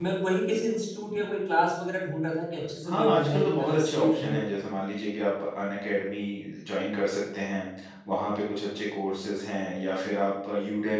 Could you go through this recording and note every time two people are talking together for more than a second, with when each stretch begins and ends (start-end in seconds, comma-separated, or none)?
2.9-4.4